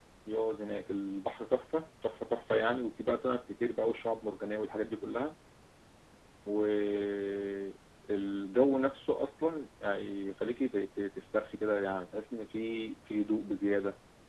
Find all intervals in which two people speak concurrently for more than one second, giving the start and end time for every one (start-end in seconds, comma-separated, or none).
none